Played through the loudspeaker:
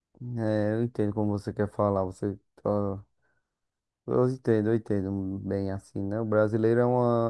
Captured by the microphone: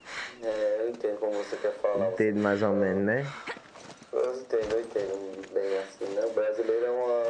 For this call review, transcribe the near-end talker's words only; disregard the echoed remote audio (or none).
Entendo mais ou menos, né?